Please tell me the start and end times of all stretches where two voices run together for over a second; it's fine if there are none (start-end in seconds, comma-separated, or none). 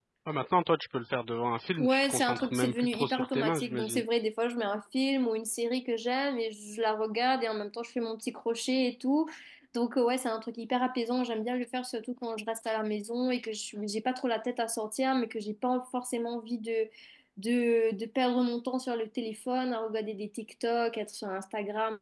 1.8-4.0